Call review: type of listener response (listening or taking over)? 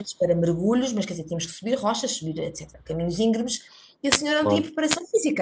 listening